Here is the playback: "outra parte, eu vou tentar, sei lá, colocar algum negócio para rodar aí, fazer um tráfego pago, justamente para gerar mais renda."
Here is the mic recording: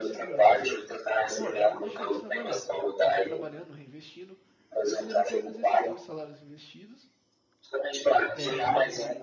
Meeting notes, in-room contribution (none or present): present